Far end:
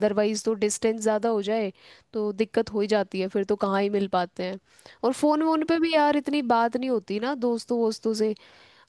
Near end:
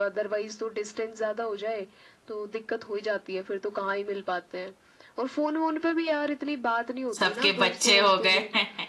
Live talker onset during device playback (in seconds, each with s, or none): 7.2 s